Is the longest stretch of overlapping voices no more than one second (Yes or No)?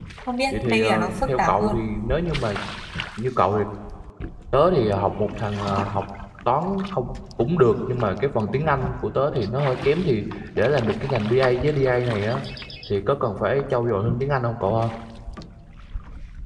No